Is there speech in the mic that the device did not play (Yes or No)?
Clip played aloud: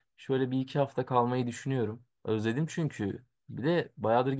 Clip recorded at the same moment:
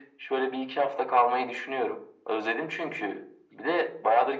No